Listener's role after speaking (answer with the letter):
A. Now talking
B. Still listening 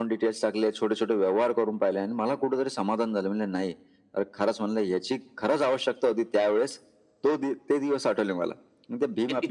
B